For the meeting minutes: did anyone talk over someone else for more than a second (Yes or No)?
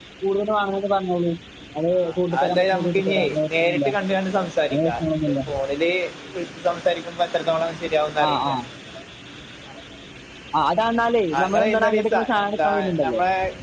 Yes